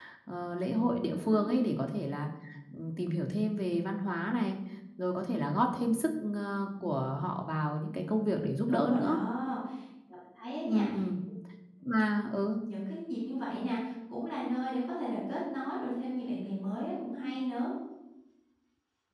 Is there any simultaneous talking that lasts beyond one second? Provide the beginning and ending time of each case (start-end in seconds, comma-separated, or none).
none